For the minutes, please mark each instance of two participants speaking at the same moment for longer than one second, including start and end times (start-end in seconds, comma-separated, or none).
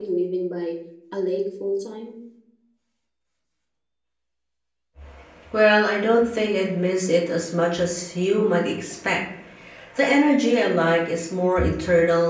none